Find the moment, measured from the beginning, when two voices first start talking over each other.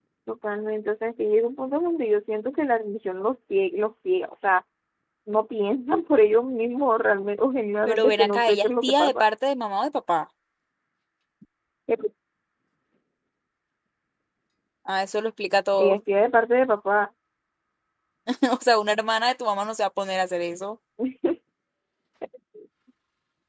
7.8 s

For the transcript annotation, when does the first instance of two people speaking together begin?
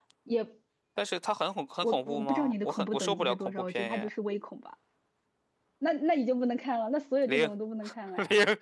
1.8 s

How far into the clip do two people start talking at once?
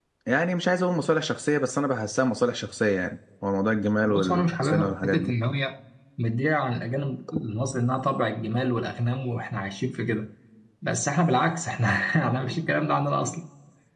4.1 s

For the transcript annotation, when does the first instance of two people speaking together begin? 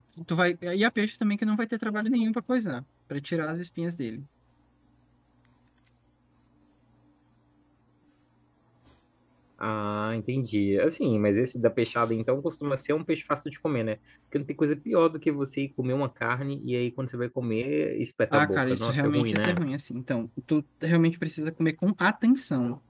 18.3 s

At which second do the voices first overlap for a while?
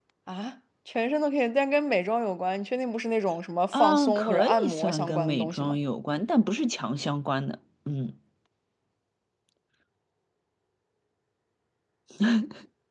3.7 s

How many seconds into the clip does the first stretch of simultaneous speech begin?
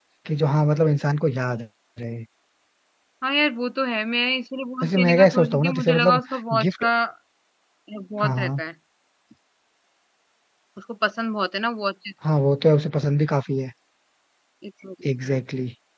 4.8 s

